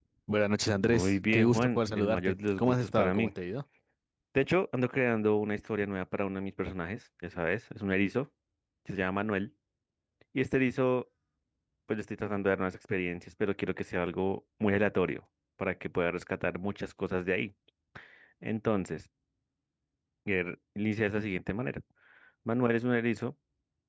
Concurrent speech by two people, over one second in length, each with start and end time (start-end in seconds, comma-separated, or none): 0.8-3.3